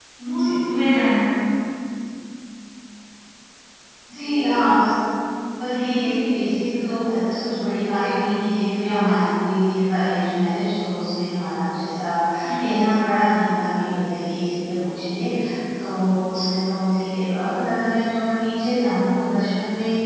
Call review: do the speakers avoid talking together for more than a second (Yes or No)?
Yes